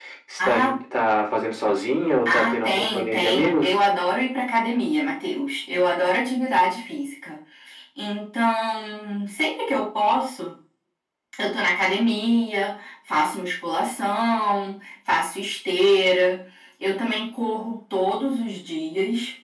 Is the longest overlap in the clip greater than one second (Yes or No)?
Yes